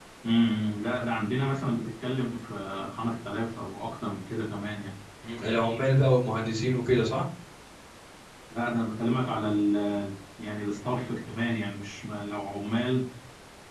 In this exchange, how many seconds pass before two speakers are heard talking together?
none

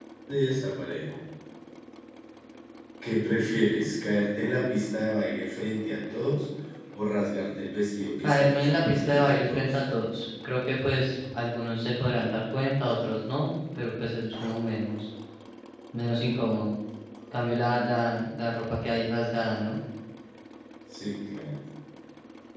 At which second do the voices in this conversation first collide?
8 s

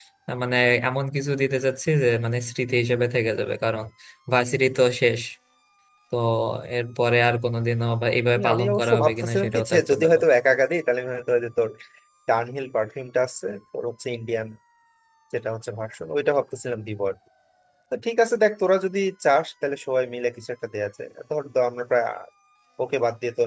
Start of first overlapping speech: 8 s

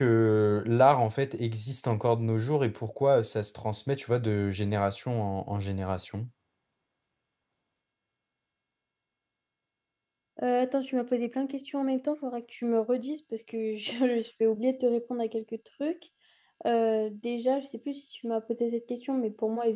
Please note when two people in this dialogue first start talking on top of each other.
none

